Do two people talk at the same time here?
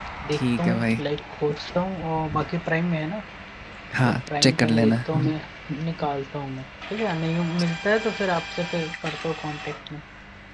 Yes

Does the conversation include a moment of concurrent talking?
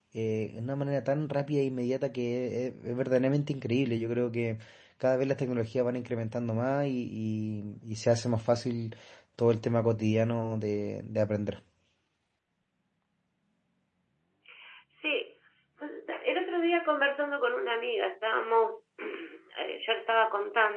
No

